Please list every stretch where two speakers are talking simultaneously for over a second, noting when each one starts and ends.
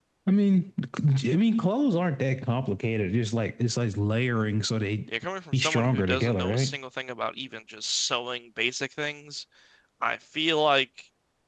5.5-6.8

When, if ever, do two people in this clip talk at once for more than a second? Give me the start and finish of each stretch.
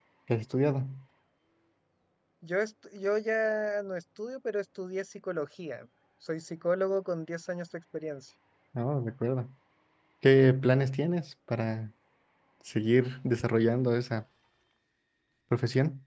none

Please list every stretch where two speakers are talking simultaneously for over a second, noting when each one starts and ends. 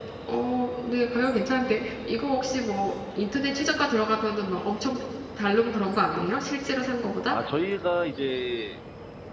none

